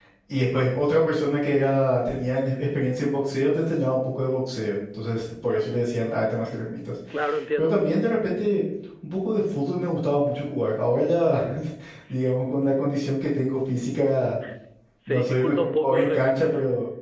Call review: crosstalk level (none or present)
present